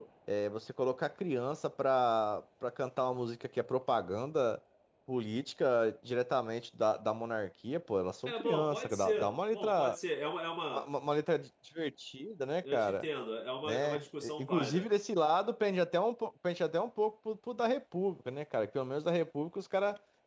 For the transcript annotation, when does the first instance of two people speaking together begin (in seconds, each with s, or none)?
8.3 s